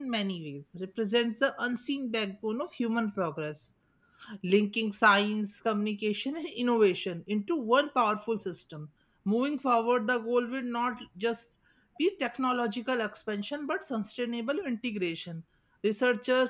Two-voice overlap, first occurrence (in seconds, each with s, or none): none